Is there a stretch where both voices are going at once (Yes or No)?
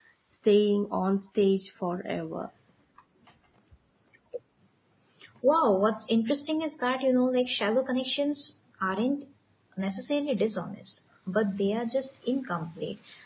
No